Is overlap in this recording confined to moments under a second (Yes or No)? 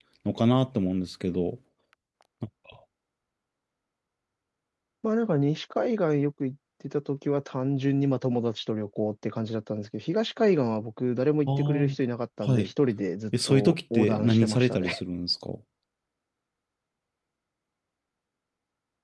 No